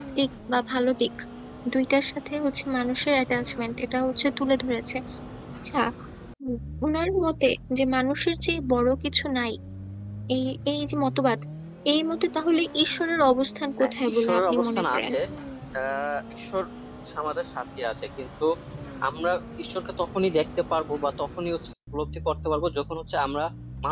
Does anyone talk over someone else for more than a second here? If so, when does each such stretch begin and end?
13.8-15.1

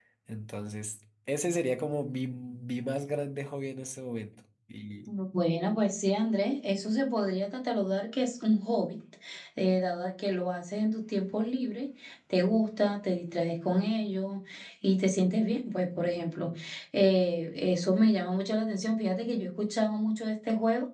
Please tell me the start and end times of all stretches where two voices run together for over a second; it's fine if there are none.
none

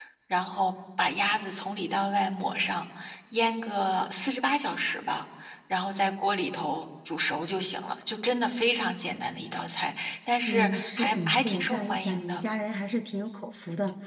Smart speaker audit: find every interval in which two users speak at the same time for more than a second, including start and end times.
10.5-12.4

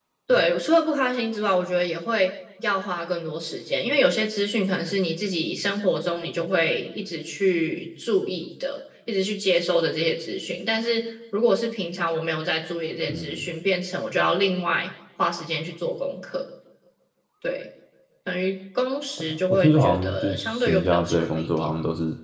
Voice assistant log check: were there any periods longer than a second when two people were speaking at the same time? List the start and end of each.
19.2-21.7

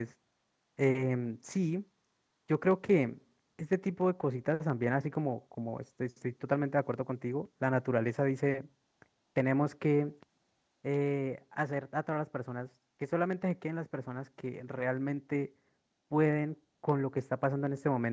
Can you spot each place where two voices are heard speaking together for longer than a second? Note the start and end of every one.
none

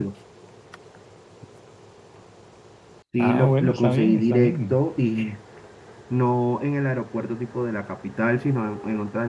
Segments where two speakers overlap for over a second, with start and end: 3.2-4.8

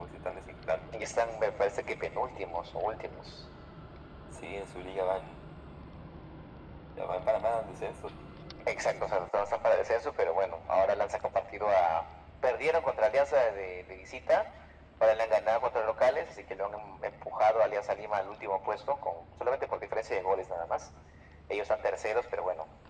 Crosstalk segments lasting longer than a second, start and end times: none

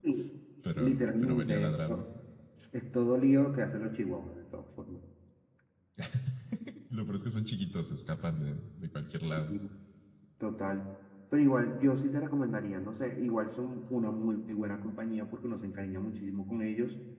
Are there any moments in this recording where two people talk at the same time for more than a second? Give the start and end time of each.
0.8-2.0

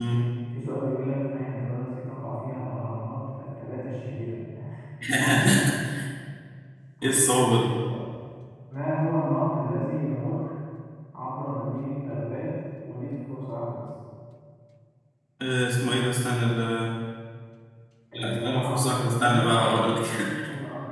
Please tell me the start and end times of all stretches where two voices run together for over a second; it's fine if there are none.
18.1-19.5

